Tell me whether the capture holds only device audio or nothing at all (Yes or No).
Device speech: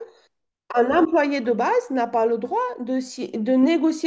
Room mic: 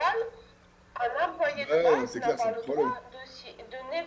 No